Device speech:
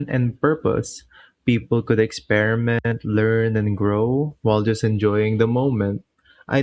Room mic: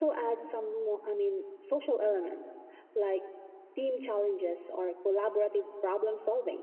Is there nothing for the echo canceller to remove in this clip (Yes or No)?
Yes